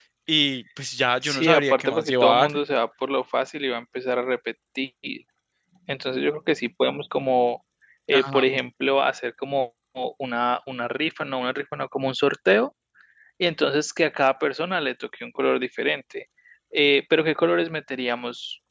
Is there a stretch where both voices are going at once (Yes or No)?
Yes